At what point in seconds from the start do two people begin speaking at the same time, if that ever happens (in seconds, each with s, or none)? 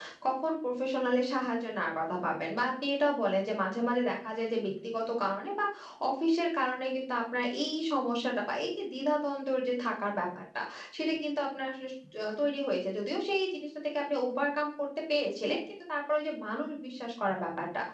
none